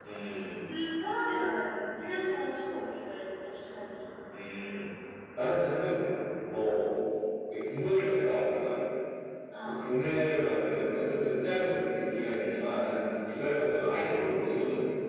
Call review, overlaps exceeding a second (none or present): none